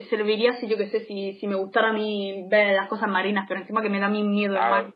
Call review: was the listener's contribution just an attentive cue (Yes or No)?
No